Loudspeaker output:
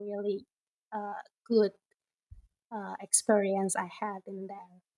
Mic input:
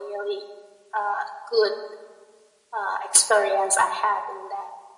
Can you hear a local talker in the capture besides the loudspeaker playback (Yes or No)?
No